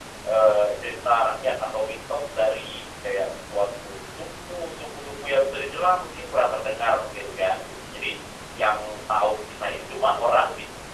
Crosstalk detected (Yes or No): No